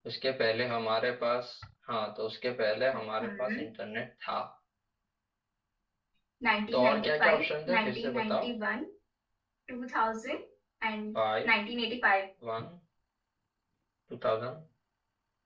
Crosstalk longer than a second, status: present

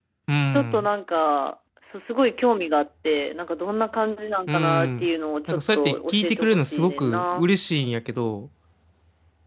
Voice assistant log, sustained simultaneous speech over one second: present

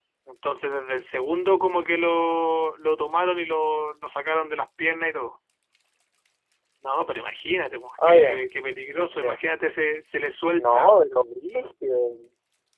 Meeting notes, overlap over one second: none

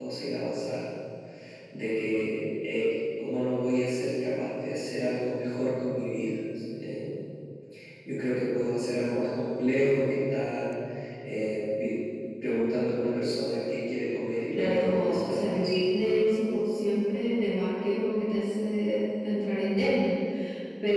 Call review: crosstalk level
present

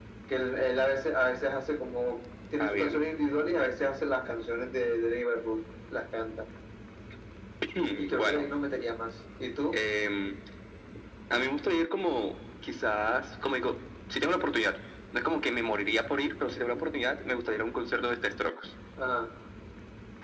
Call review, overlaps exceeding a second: none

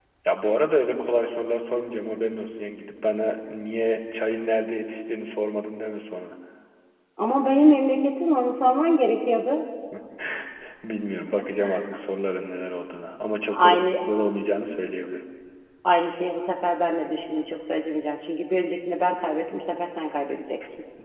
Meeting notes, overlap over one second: none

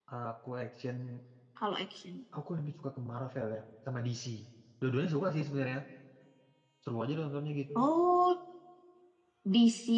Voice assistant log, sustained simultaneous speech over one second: none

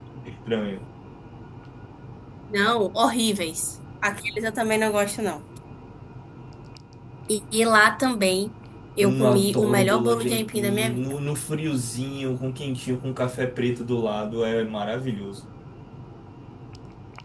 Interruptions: present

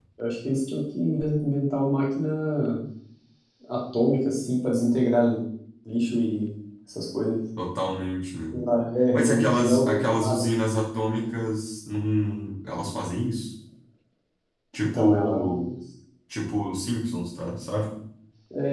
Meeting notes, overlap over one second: present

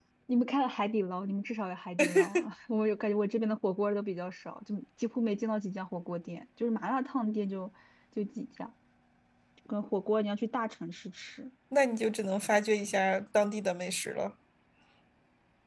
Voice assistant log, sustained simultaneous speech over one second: none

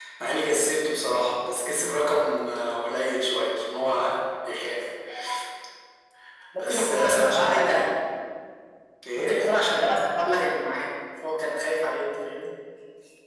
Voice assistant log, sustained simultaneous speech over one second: present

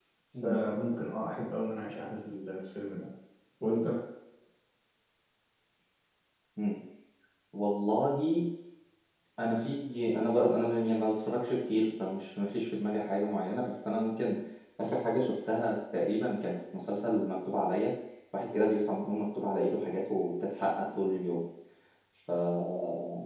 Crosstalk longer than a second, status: none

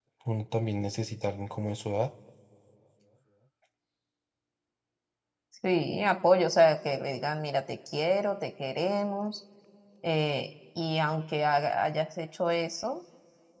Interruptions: none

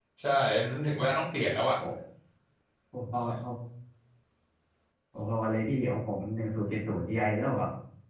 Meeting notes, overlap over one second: none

